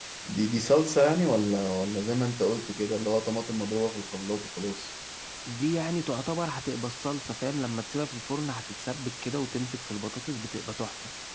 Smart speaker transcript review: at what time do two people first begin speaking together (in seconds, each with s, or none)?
none